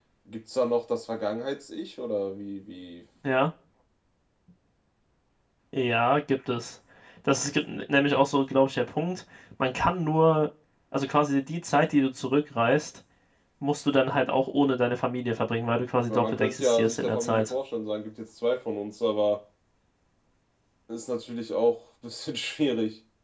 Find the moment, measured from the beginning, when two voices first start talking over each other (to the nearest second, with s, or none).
16 s